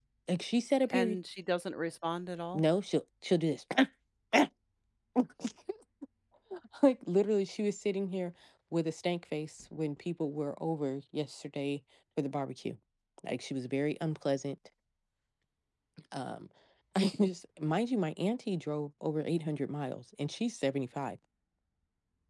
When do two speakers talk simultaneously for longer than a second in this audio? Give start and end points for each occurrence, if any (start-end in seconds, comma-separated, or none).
none